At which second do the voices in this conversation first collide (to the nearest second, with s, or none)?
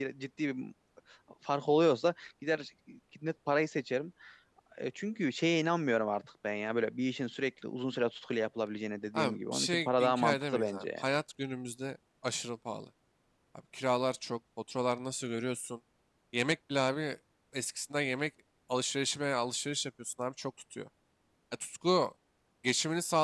9 s